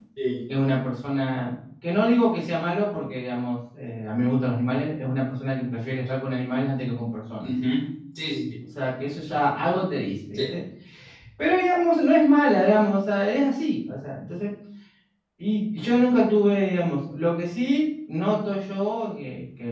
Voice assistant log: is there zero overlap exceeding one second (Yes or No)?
Yes